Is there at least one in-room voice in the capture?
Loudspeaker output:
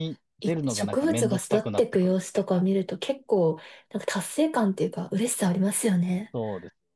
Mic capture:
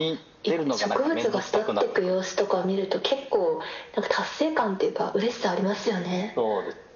No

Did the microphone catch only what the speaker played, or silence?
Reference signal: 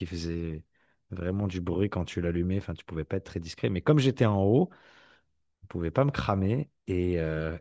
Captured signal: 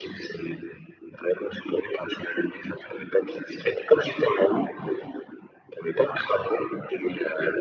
Yes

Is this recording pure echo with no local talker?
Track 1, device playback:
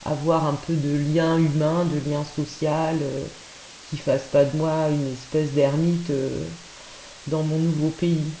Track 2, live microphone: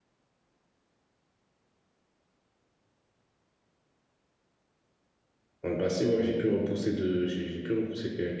No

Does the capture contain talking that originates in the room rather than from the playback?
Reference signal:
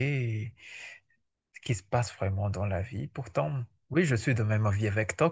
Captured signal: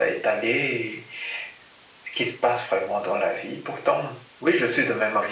No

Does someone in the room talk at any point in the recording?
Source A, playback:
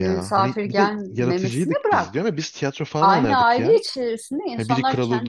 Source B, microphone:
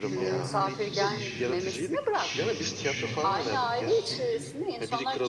Yes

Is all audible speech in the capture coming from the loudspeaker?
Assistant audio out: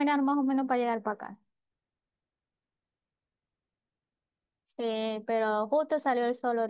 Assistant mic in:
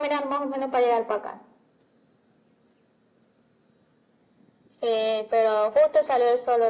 Yes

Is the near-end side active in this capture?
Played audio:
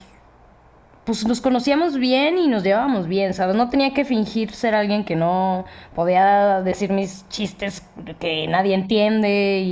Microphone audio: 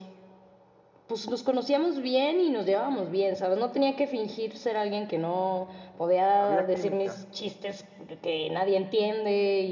Yes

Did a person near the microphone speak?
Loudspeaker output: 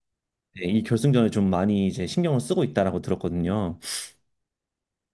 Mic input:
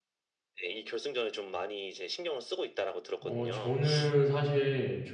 Yes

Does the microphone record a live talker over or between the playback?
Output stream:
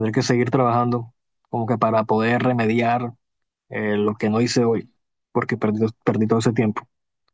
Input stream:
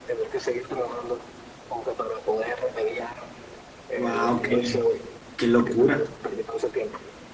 Yes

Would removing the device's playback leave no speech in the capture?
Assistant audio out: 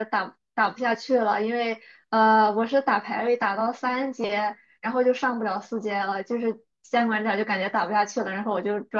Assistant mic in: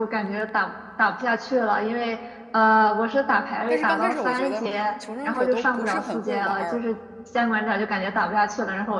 No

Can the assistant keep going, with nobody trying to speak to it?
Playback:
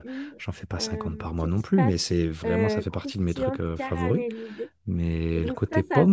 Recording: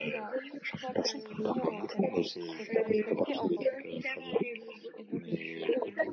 No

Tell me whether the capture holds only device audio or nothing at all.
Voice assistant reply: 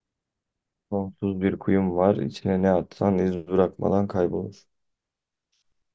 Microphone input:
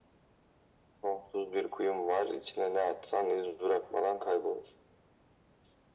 Yes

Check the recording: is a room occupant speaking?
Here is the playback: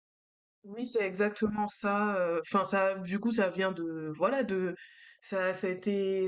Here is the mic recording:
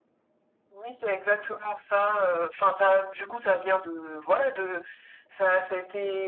No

